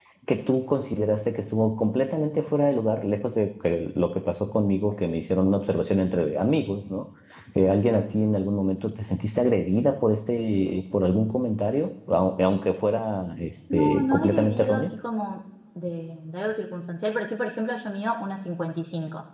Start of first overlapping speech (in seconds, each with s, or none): 13.7 s